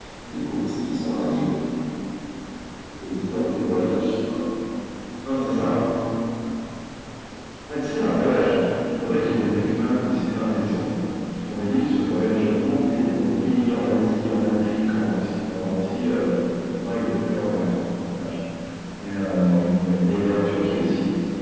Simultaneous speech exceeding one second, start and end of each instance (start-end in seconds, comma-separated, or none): none